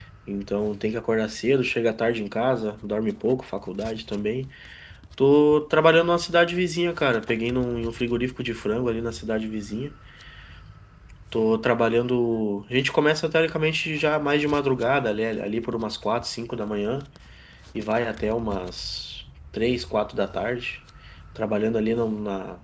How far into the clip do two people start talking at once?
none

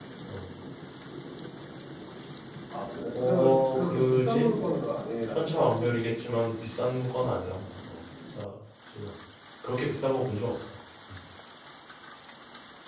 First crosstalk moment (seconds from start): 3.1 s

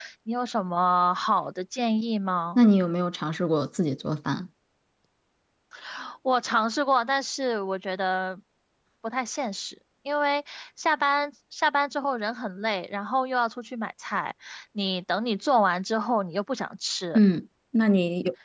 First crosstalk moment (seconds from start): none

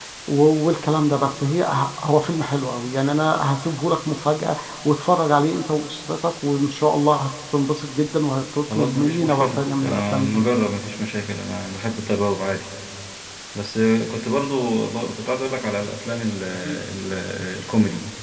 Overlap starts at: 8.7 s

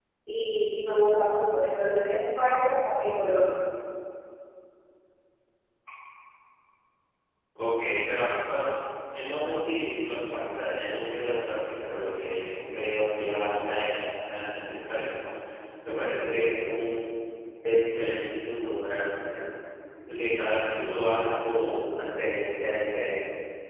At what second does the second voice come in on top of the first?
none

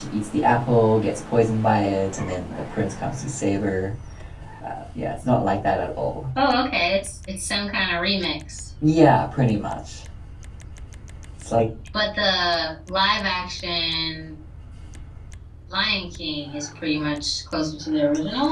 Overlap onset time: none

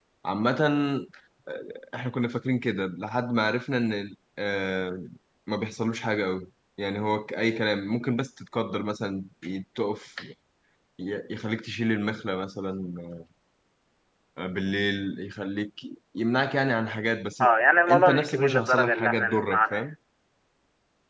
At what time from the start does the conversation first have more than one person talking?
17.9 s

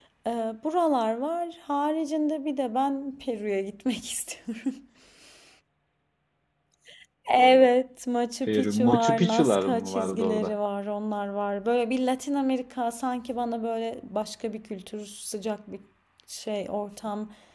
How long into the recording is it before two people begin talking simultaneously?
8.5 s

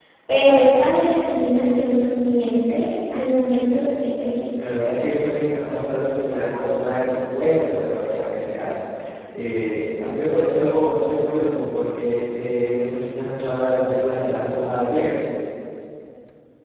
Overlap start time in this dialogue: none

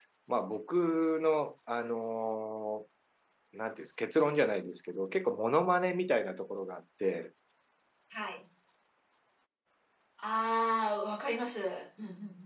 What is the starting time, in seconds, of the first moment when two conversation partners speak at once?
none

